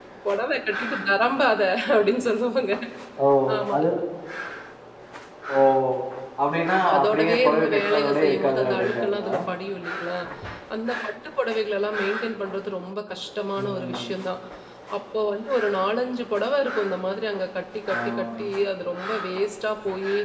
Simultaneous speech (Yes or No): Yes